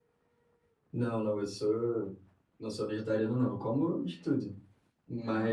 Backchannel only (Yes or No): Yes